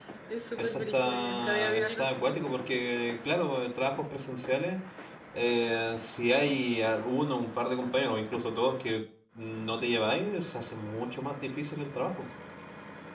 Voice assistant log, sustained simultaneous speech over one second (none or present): present